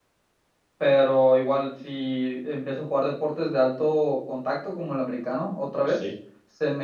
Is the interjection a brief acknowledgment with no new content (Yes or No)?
Yes